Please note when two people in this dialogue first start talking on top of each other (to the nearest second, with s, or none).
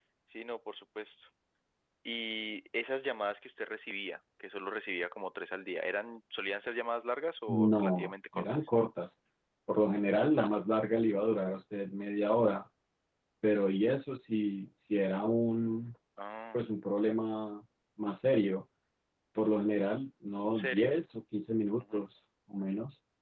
7 s